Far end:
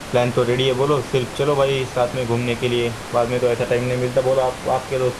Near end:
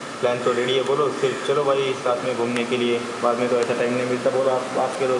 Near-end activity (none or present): none